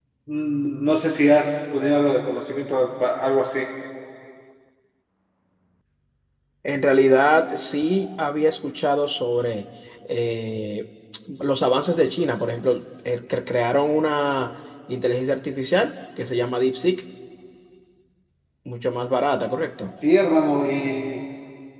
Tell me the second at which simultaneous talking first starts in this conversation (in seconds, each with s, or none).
none